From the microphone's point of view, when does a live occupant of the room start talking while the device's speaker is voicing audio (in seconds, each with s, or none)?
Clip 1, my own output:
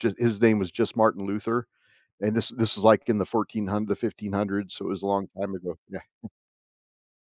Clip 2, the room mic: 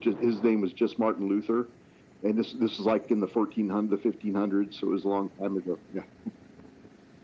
none